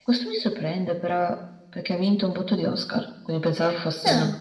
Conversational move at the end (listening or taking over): listening